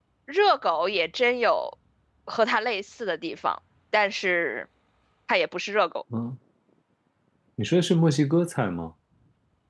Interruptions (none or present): none